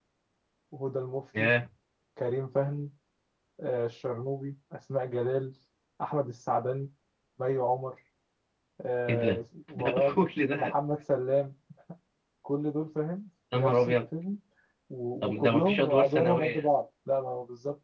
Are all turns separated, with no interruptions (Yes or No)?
No